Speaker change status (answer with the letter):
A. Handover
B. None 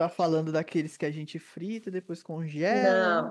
A